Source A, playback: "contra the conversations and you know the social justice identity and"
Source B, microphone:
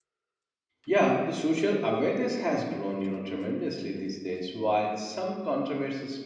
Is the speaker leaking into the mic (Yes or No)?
No